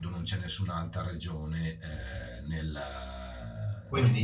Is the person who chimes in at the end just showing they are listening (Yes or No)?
Yes